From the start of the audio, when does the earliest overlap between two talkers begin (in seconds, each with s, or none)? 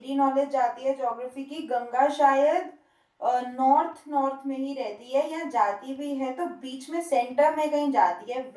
none